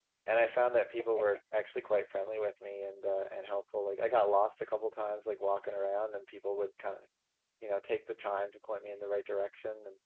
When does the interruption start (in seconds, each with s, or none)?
none